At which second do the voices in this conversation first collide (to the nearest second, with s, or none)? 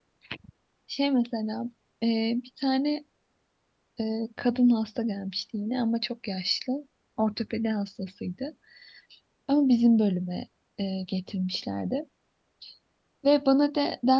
none